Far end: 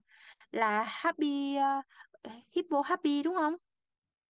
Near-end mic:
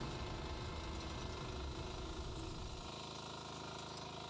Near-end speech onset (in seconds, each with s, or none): none